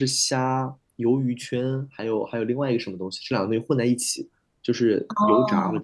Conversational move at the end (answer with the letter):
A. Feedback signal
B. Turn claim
B